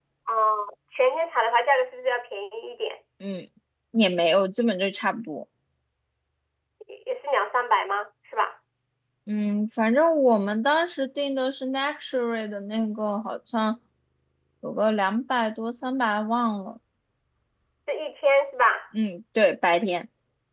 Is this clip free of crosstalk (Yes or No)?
Yes